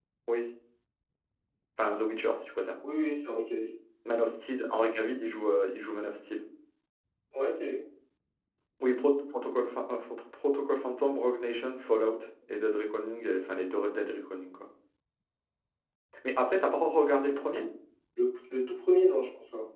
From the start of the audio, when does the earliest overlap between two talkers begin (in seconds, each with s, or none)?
none